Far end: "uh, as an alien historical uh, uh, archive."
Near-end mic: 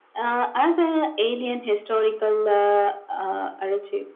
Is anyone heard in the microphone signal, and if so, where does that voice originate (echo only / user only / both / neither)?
echo only